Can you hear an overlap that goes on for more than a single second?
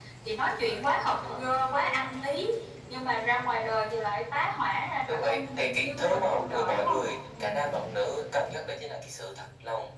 Yes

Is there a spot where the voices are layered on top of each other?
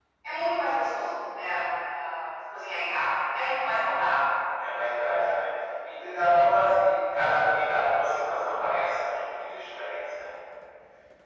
No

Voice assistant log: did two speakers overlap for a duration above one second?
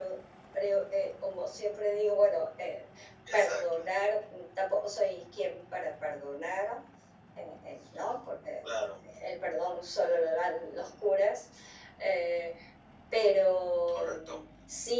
No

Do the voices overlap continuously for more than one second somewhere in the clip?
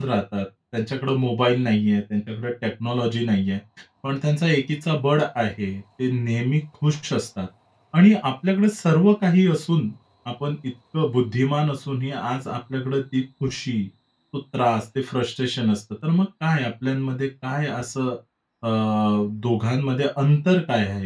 No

